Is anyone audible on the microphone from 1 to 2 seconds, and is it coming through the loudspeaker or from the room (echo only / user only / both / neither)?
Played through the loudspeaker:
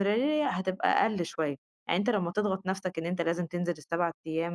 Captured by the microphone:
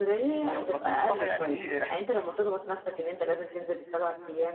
both